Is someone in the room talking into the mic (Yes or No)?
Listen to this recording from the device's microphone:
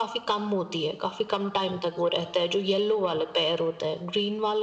No